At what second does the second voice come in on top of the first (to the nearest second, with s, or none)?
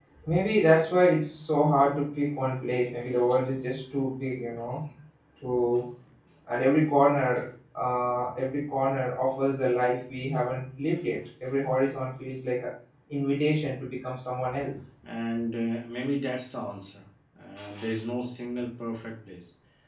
none